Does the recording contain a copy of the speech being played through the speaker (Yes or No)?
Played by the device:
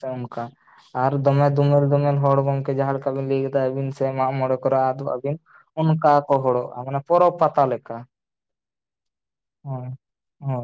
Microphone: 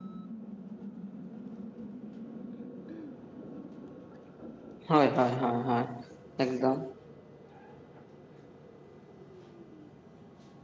No